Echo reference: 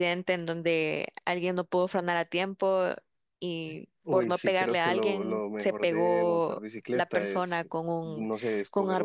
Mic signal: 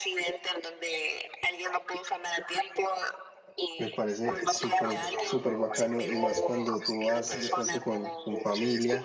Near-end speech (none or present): present